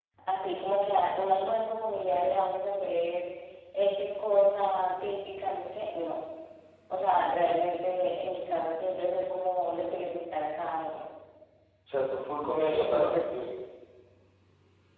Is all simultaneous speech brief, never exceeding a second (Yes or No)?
Yes